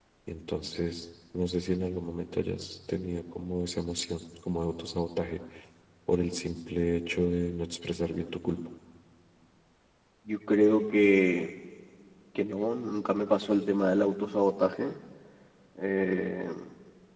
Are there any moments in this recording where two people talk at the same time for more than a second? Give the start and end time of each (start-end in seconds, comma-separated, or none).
none